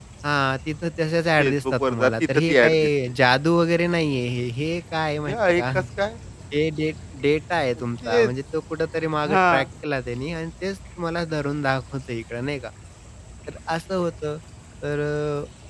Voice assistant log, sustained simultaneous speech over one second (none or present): present